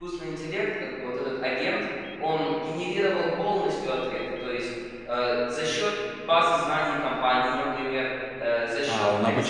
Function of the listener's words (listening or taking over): taking over